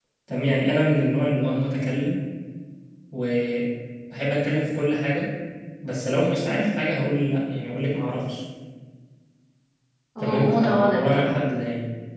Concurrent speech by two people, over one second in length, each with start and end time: 10.2-11.4

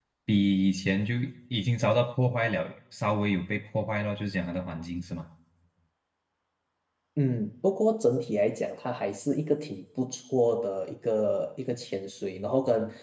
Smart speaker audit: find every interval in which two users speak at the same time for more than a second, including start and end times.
none

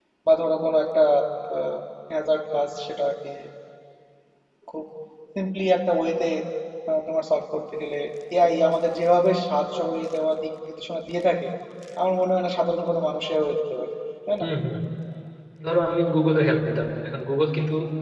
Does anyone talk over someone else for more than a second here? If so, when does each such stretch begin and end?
none

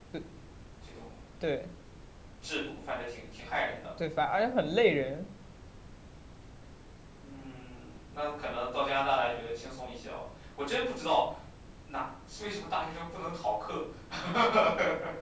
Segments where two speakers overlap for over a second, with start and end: none

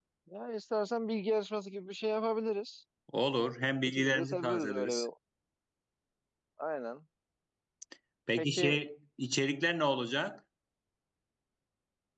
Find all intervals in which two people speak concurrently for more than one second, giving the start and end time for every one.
3.8-5.0

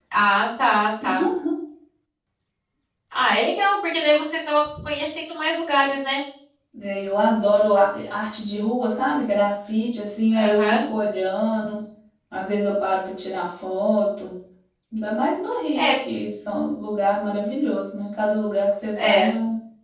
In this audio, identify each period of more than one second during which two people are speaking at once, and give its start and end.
none

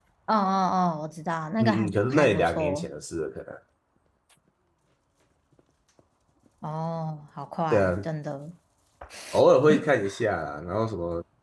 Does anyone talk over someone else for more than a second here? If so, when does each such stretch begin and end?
1.6-2.9

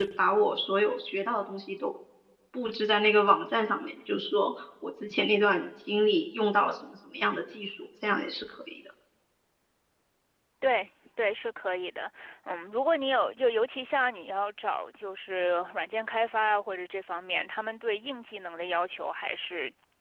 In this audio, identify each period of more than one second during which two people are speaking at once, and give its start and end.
none

